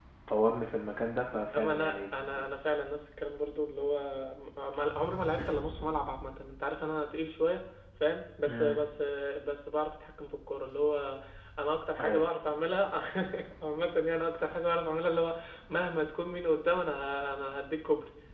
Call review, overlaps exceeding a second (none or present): none